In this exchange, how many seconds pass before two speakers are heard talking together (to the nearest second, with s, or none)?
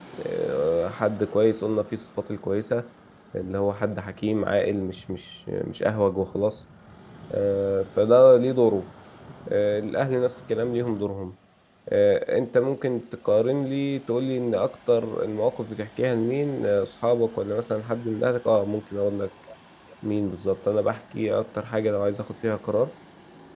none